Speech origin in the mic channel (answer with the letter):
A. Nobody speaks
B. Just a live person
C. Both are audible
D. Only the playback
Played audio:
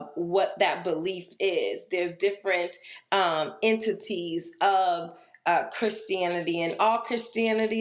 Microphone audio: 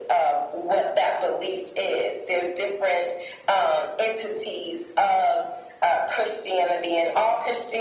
D